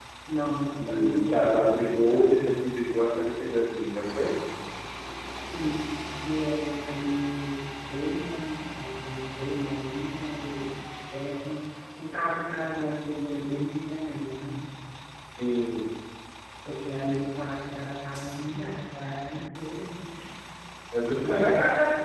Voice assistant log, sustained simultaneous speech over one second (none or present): present